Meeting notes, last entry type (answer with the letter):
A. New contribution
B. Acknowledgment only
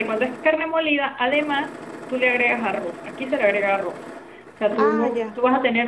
B